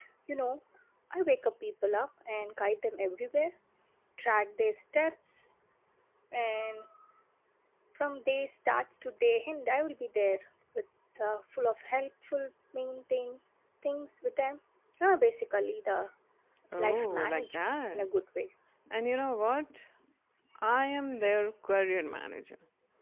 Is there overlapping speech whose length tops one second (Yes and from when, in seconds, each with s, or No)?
Yes, from 16.8 s